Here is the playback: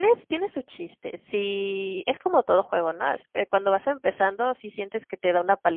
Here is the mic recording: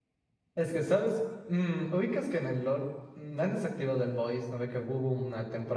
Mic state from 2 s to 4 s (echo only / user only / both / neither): user only